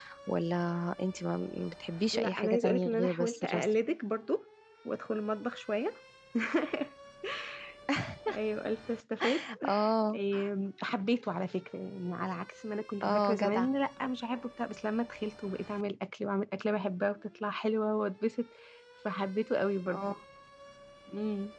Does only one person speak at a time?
No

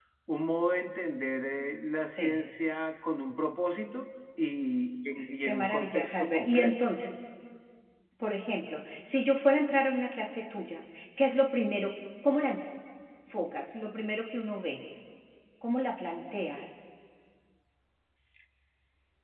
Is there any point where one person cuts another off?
Yes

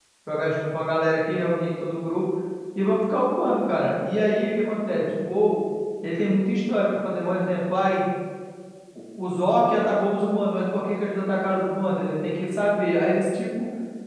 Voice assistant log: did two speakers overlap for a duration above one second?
No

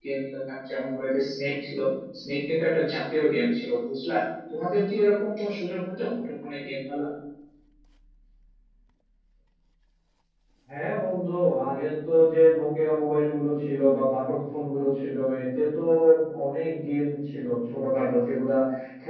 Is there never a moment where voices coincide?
Yes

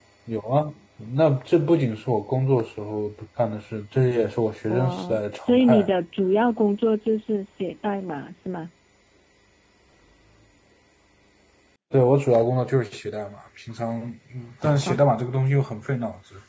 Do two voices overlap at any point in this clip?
Yes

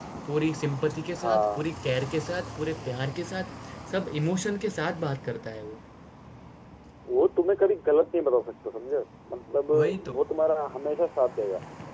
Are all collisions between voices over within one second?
Yes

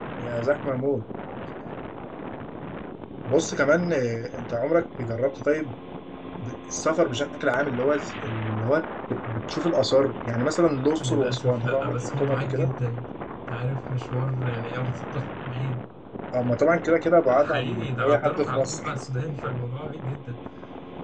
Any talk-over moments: Yes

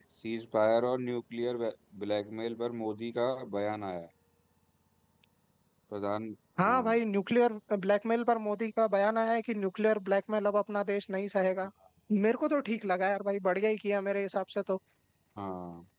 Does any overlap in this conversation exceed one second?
No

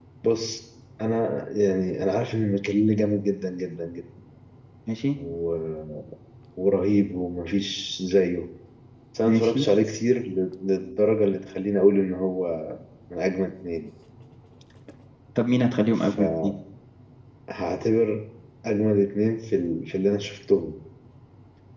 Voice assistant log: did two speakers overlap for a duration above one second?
No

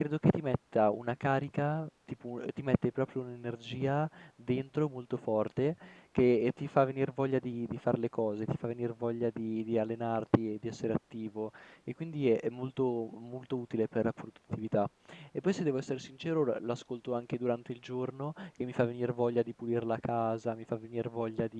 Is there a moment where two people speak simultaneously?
No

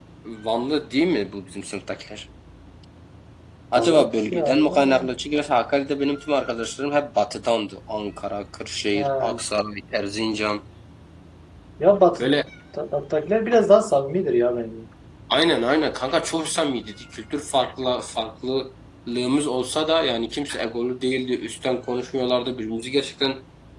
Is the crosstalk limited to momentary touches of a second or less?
No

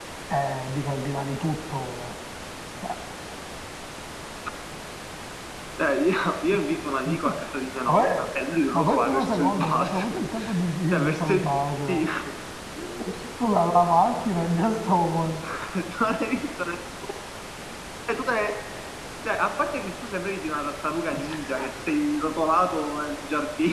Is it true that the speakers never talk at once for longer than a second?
No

